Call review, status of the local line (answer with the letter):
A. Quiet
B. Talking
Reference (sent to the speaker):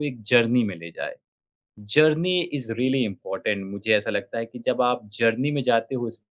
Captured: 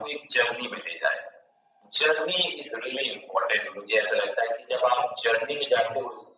A